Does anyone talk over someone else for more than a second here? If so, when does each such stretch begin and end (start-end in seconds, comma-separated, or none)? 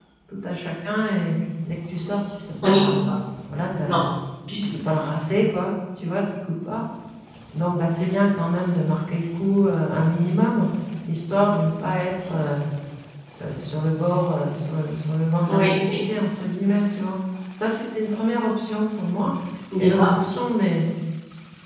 none